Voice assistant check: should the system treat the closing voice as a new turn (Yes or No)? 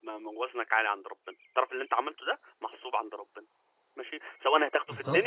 Yes